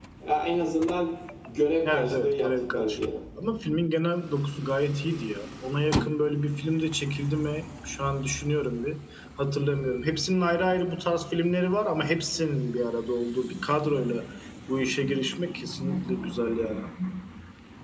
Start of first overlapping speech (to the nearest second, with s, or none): 2 s